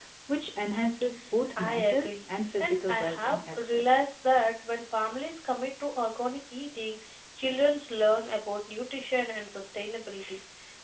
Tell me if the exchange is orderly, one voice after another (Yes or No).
No